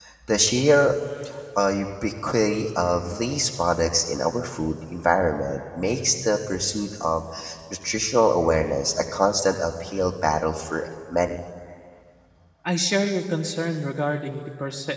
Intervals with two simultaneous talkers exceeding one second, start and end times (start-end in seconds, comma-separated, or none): none